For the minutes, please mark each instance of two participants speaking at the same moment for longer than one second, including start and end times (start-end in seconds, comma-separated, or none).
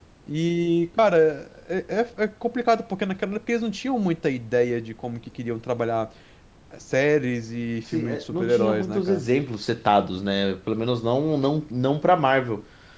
7.9-9.2